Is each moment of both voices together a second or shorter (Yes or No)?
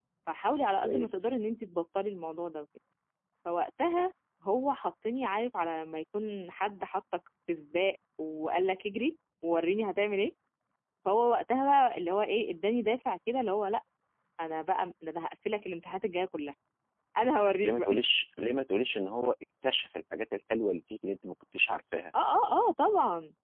Yes